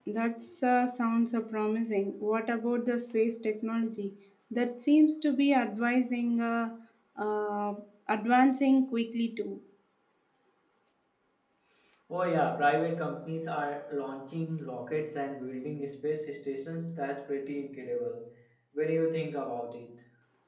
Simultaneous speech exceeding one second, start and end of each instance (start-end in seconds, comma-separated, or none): none